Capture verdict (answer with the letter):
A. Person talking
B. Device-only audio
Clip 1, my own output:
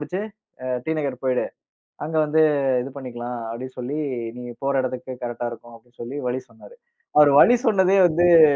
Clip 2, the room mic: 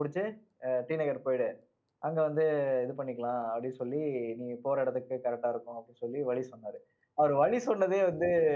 B